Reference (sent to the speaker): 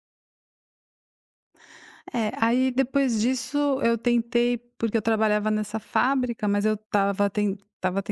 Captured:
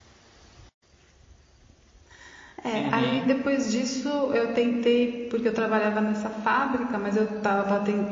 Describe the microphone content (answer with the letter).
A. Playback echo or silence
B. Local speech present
B